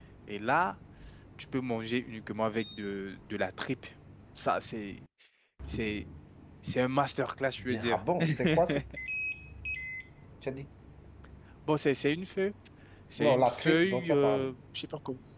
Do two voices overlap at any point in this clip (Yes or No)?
Yes